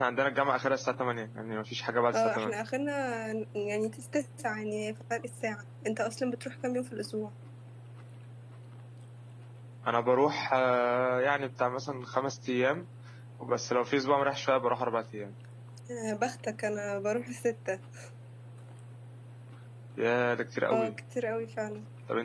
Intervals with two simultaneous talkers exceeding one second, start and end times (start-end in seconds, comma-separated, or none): none